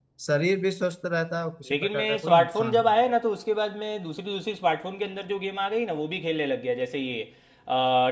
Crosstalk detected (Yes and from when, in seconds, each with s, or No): Yes, from 1.7 s